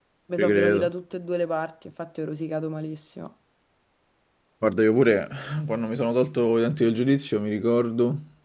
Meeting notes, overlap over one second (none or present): none